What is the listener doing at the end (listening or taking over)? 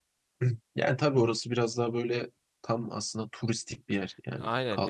taking over